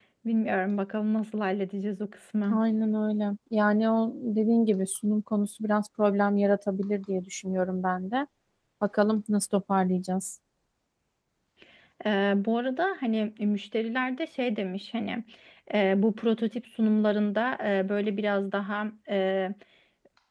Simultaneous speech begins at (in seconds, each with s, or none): none